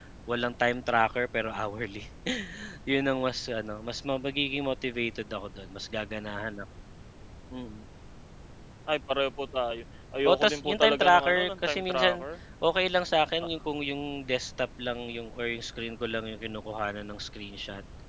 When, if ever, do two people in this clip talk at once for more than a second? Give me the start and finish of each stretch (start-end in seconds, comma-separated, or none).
10.2-12.2